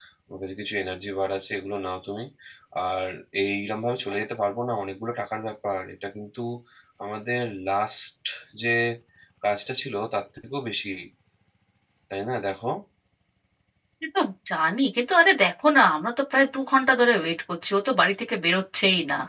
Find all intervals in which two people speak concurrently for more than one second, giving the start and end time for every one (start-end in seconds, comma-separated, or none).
none